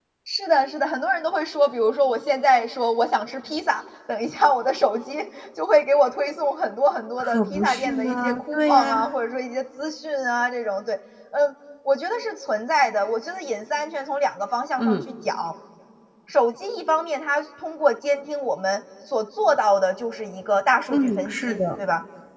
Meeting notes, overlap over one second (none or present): present